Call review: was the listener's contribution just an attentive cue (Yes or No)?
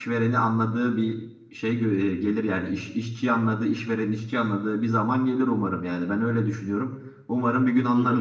No